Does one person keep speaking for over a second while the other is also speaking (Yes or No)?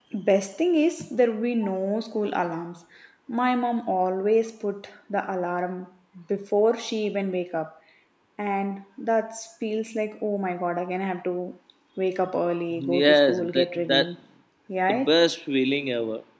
Yes